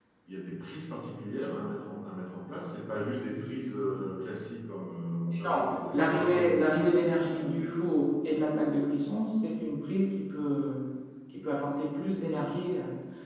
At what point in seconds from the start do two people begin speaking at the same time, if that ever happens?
5.5 s

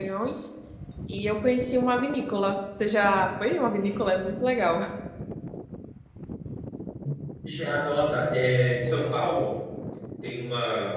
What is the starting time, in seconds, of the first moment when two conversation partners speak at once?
none

